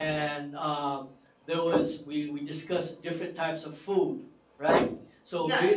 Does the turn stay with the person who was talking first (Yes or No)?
Yes